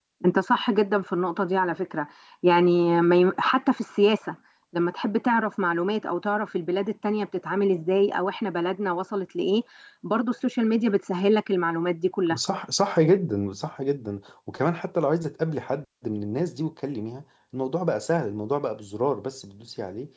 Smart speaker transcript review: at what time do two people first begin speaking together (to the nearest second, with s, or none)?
none